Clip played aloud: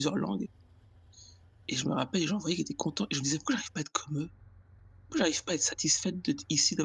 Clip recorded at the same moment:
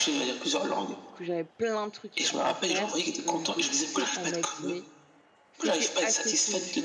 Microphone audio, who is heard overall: both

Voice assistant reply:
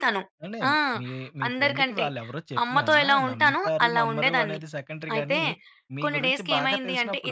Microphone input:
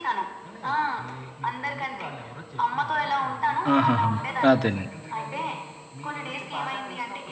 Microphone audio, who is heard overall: both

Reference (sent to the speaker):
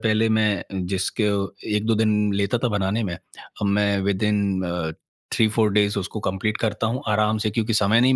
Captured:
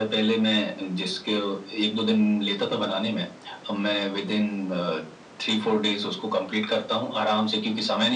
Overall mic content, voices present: echo only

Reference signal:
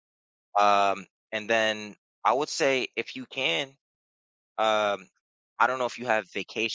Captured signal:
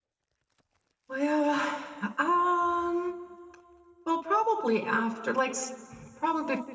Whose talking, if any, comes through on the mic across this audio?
user only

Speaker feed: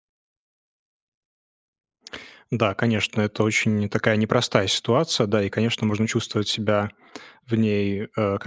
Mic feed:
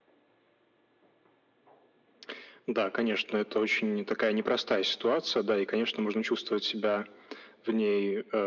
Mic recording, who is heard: echo only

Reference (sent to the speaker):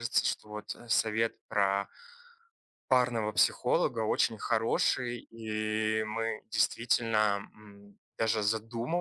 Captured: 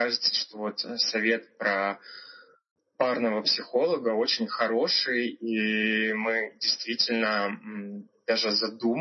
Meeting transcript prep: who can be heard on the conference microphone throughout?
echo only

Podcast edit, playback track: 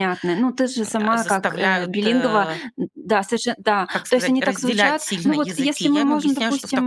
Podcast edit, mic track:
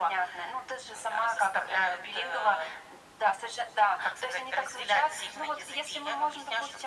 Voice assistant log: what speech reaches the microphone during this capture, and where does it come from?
echo only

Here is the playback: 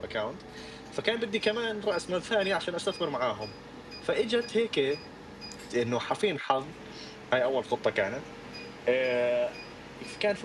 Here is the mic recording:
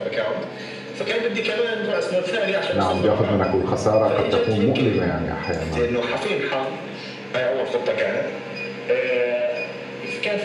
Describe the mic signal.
both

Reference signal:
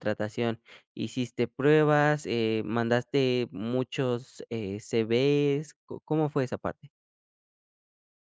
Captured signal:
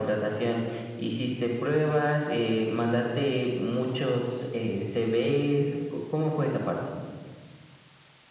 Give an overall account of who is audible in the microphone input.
echo only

